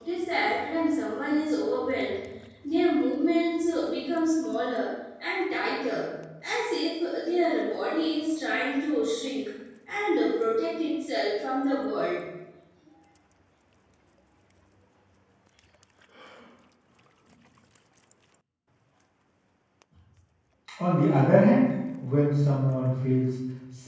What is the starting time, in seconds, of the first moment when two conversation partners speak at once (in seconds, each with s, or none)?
none